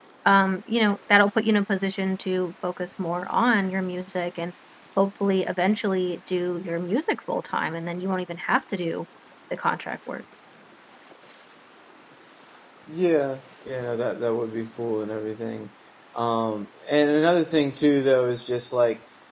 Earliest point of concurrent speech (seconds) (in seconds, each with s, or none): none